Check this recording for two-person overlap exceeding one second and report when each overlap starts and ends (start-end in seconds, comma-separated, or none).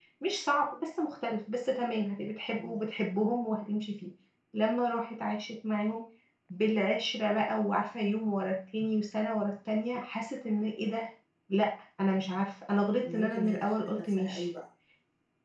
13.0-14.4